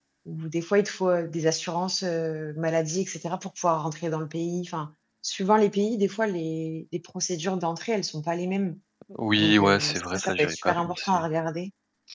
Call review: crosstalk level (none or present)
present